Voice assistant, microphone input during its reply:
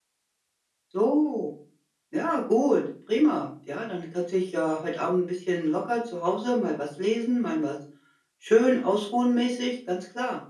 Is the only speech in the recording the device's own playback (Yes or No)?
No